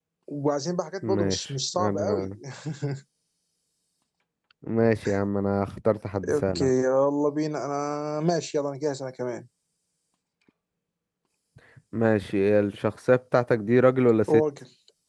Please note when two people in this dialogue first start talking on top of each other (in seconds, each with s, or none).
1.0 s